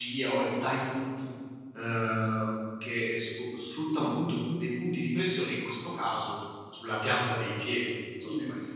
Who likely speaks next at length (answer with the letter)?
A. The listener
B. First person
A